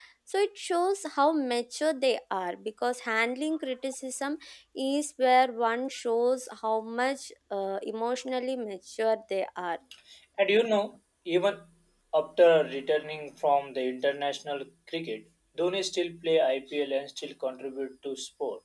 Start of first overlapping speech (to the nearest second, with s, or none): none